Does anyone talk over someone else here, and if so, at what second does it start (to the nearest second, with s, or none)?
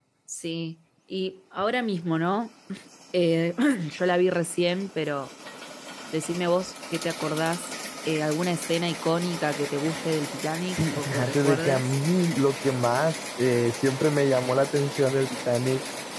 11 s